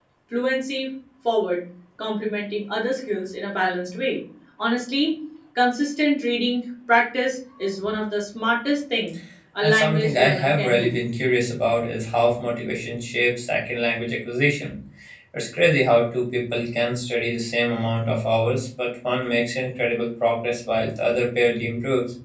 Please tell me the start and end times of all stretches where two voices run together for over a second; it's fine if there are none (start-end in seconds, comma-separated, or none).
9.6-10.9